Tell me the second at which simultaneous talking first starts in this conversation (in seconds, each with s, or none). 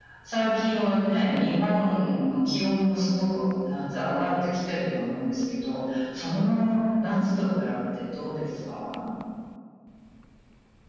none